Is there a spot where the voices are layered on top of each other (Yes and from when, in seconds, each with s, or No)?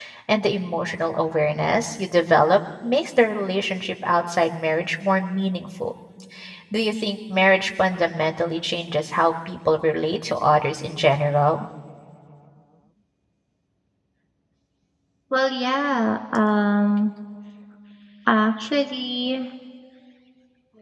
No